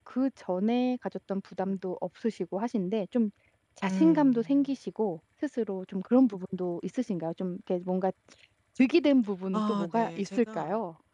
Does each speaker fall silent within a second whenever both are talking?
No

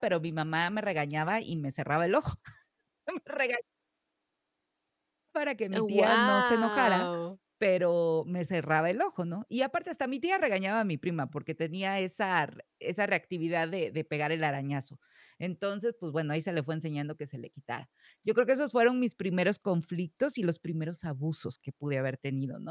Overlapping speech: Yes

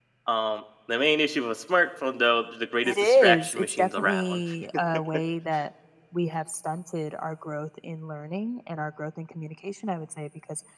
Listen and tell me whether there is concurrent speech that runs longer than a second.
Yes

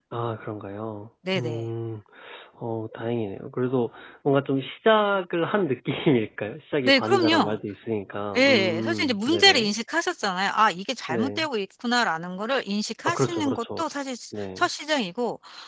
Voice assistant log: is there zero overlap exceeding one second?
No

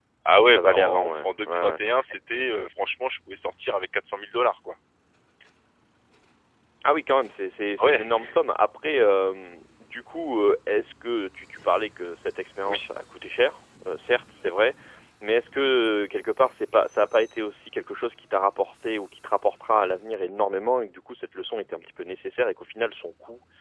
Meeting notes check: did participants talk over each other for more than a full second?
Yes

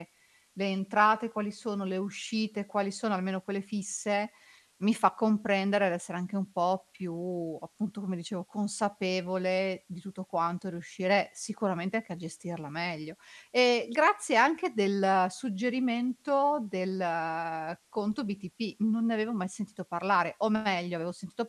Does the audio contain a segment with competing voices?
No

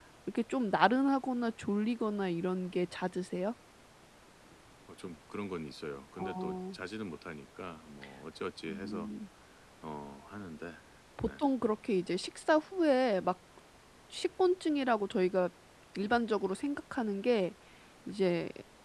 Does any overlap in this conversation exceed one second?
No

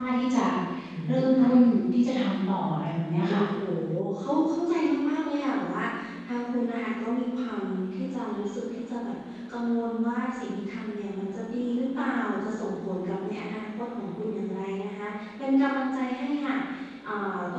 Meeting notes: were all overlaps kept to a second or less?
Yes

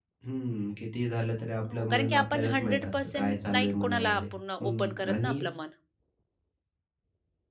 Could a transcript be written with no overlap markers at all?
No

